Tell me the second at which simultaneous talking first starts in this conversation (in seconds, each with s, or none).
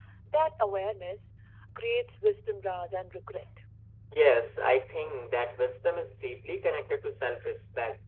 none